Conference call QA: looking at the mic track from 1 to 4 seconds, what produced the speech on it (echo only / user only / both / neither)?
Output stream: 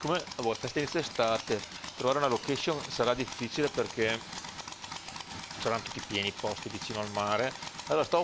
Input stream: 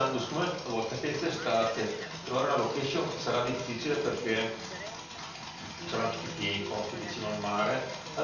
both